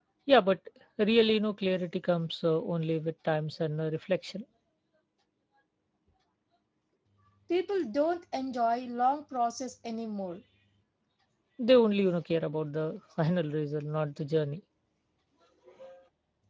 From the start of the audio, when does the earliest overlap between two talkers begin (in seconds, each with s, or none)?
none